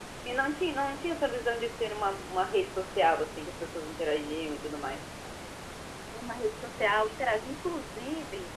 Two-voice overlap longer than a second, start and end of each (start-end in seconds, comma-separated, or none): none